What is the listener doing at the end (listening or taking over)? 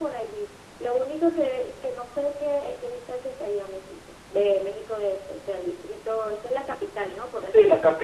taking over